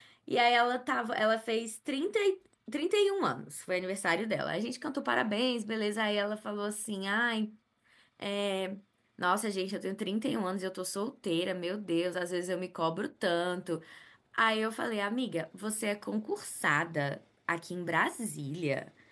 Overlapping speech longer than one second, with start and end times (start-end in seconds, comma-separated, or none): none